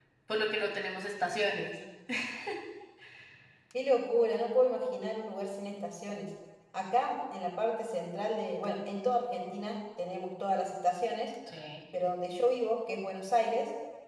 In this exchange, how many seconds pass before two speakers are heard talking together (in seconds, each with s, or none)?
none